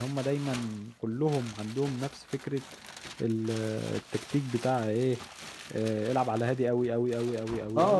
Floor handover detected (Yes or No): Yes